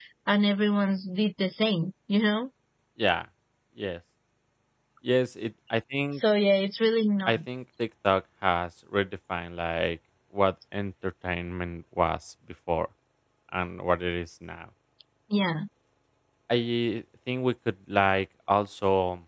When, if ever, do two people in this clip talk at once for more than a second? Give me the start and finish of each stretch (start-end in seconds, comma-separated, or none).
none